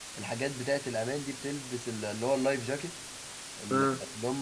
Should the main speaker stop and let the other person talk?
No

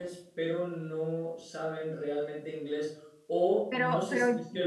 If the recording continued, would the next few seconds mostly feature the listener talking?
No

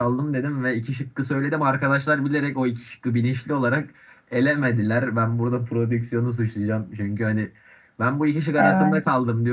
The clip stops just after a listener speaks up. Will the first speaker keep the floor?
Yes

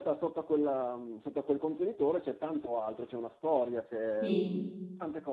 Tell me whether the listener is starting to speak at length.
No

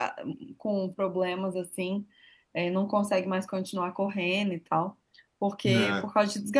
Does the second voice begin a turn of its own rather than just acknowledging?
No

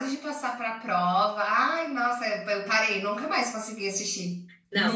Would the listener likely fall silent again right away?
No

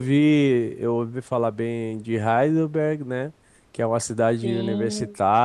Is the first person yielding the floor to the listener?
No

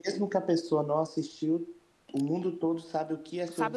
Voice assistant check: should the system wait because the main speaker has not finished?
No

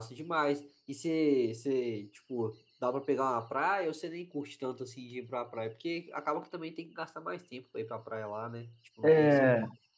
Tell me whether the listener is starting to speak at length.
Yes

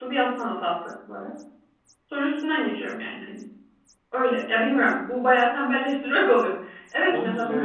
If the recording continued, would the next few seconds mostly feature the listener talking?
No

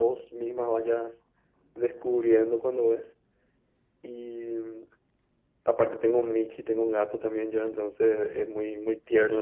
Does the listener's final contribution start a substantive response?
No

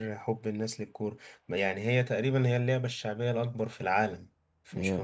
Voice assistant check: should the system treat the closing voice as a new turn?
No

